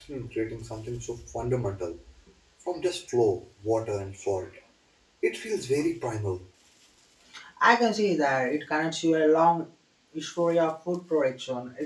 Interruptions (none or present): none